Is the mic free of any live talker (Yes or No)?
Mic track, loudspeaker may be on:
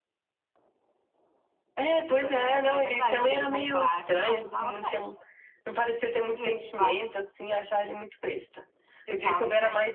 No